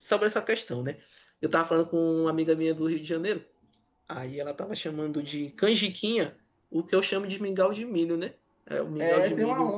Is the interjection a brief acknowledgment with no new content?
No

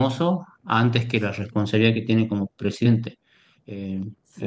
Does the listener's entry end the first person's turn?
No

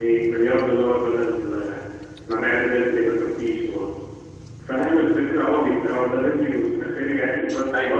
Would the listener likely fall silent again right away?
Yes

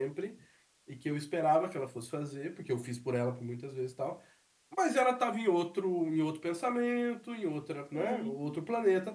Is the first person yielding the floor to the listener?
No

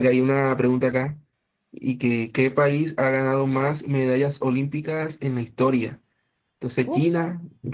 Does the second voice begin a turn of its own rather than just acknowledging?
No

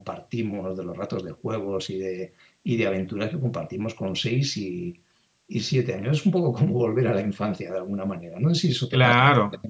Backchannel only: No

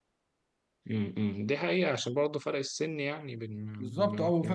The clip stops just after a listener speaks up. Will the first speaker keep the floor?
No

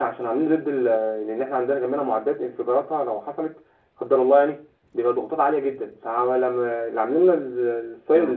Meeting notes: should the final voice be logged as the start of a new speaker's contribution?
No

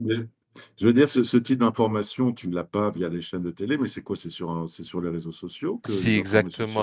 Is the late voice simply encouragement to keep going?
No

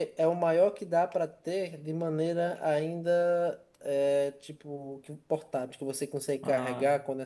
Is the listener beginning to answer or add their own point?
No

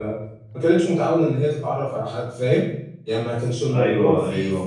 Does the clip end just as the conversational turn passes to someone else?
Yes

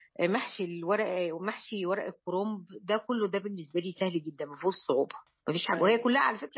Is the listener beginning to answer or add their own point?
No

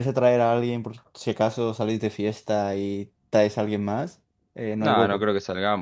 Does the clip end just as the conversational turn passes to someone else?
Yes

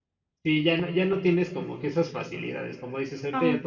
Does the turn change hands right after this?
No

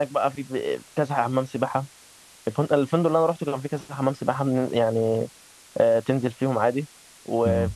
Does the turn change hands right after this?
No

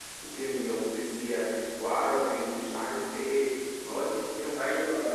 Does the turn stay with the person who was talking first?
No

